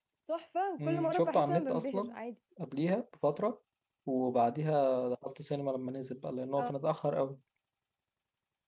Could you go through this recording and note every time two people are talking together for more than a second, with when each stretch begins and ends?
0.8-2.1

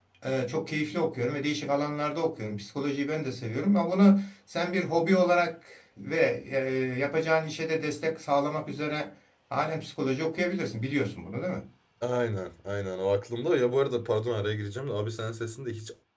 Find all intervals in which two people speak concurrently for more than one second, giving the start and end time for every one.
none

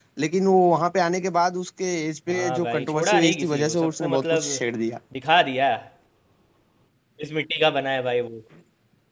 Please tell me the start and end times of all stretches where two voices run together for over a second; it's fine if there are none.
2.3-4.5

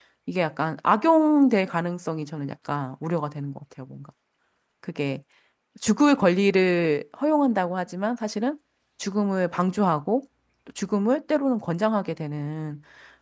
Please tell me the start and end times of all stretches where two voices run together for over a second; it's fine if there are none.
none

